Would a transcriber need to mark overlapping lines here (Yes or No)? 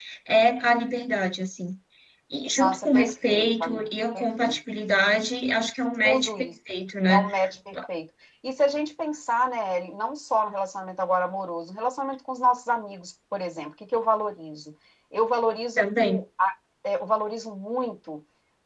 Yes